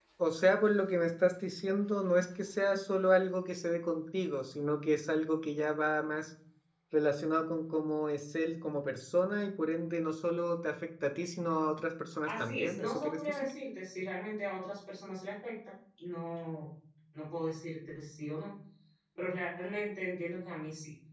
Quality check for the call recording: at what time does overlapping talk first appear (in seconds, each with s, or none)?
12.3 s